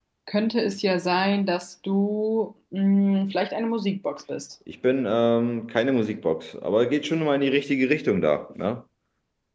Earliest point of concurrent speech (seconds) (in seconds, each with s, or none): none